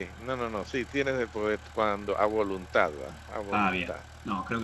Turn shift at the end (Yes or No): Yes